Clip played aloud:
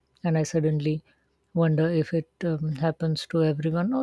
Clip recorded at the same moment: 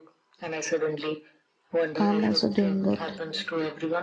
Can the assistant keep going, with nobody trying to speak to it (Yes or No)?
No